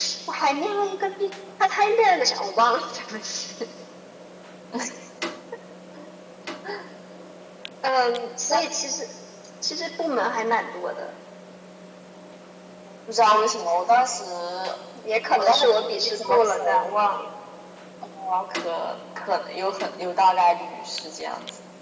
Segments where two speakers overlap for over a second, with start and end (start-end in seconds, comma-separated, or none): 15.4-16.9